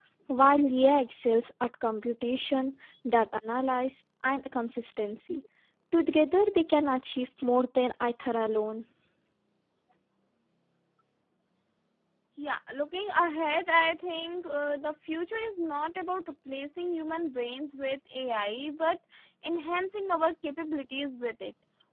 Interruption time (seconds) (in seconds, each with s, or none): none